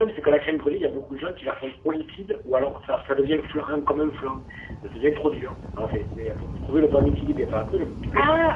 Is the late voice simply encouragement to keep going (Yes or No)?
Yes